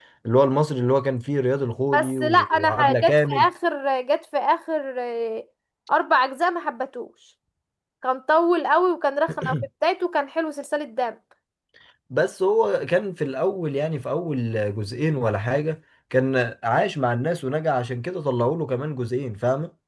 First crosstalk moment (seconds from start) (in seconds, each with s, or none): 1.9 s